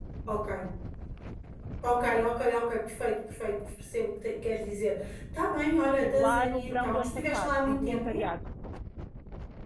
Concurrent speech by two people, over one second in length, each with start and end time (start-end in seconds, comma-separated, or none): 5.9-8.3